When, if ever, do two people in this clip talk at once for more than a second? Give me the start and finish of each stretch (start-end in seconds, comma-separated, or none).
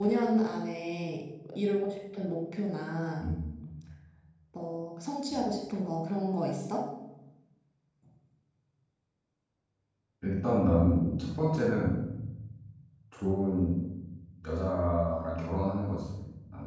none